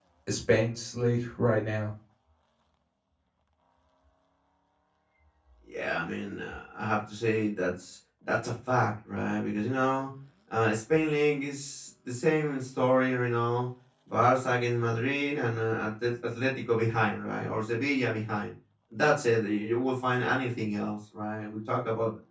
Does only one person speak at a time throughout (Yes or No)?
Yes